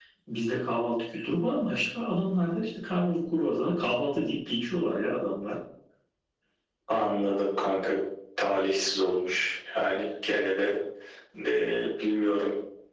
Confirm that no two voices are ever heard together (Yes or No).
Yes